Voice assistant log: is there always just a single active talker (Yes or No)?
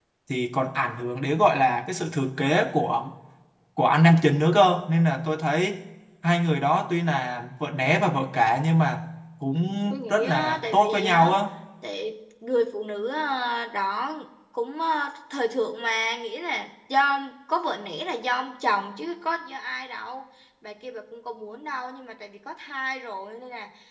No